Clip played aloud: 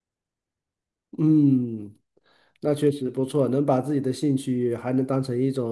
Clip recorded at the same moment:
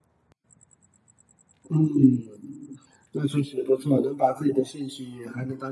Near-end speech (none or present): none